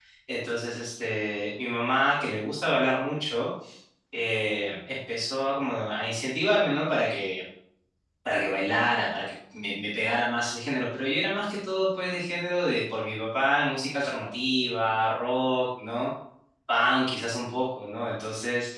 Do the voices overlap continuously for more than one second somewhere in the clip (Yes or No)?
No